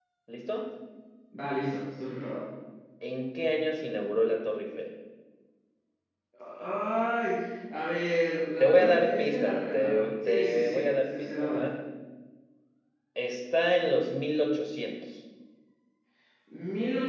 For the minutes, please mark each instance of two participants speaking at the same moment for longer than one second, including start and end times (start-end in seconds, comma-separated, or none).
8.6-11.7